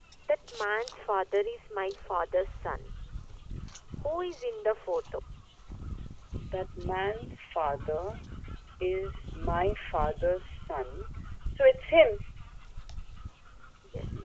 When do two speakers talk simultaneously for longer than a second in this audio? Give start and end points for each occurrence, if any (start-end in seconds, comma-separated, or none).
none